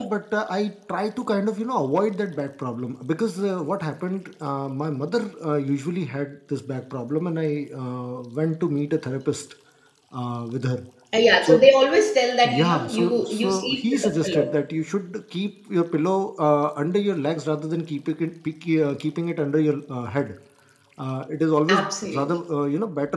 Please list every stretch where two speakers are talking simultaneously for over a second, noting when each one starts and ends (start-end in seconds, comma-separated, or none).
12.6-14.5